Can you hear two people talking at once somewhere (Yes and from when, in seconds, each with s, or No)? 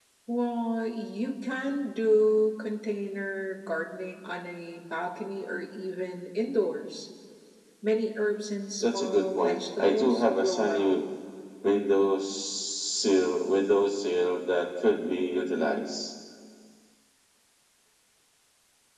Yes, from 8.8 s